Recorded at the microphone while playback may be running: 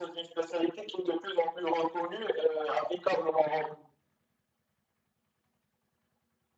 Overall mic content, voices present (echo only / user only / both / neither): echo only